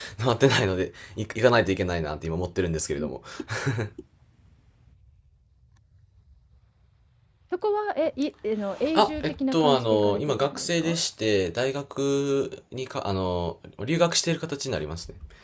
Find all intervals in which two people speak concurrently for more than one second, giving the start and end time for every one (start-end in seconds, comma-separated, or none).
9.0-11.0